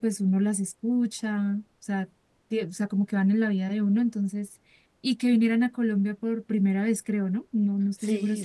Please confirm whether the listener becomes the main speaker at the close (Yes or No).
Yes